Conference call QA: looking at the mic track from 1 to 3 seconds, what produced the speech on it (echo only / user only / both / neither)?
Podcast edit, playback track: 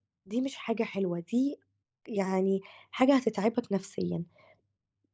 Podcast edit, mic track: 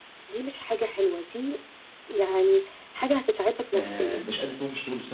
echo only